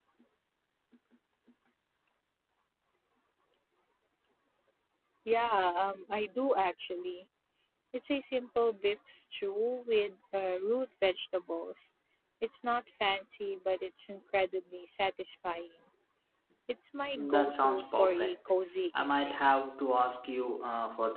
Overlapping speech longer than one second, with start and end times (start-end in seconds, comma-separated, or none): 17.1-18.4